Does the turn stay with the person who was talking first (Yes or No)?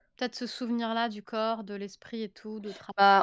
No